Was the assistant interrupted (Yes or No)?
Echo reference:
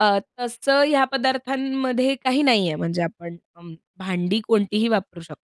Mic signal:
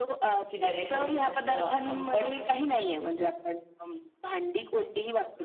Yes